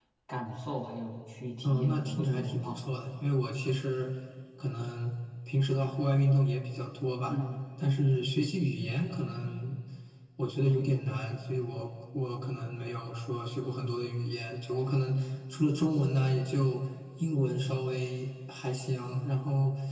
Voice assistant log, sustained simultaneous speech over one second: present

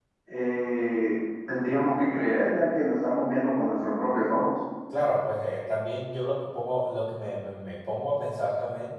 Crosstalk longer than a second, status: none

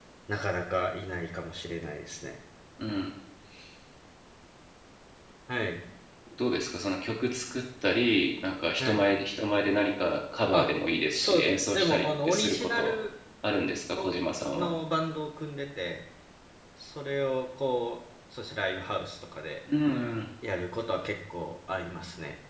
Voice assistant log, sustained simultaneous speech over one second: present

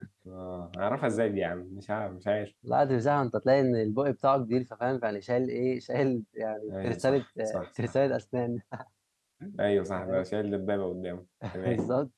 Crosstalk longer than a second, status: present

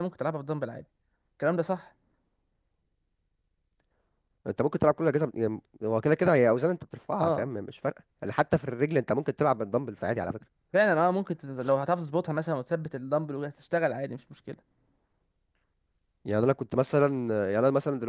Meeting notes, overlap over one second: none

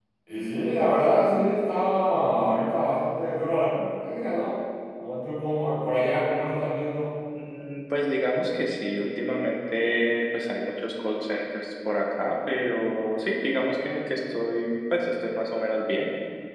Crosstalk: none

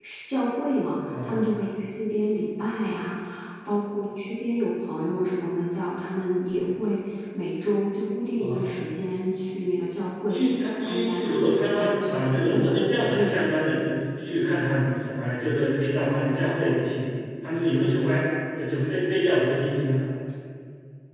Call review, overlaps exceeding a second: present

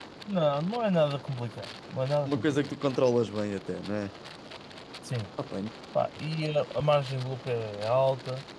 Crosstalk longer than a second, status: none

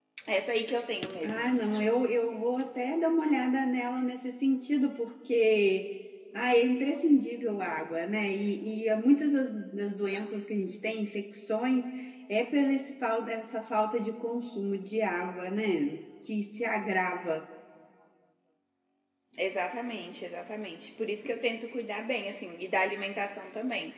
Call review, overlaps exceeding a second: none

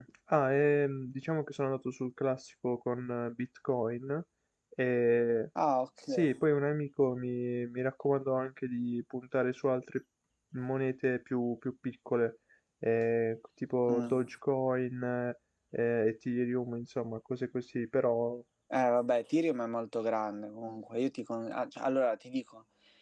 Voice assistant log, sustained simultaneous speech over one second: none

